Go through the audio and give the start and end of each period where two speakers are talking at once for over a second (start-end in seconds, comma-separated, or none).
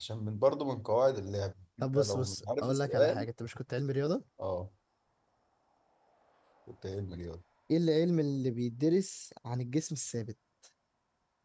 1.9-3.2